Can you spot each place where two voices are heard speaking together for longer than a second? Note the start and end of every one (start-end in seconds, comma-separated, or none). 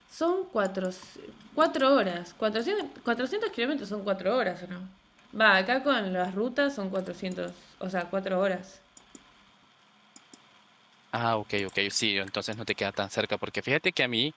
none